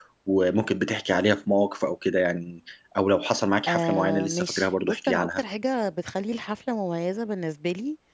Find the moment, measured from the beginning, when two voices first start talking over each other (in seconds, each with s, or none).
3.7 s